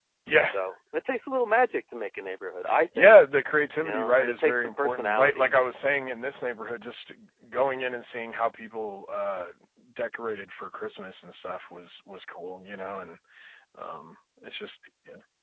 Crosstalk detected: Yes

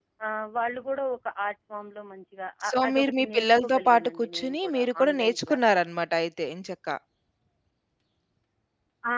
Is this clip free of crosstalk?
No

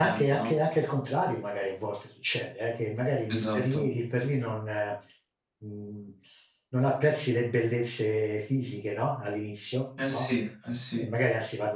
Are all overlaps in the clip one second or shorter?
Yes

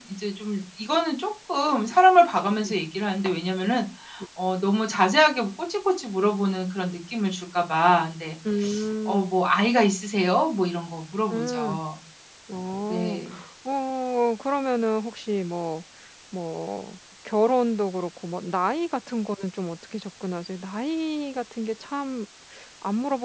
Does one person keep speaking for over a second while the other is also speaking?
No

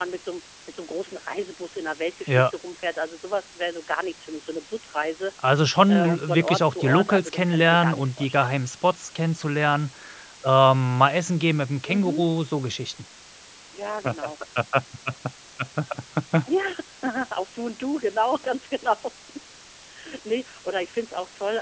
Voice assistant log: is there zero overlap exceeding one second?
No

